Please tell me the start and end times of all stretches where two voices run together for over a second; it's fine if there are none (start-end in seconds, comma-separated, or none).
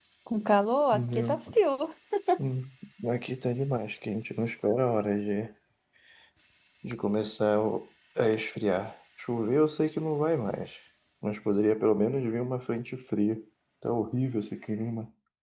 none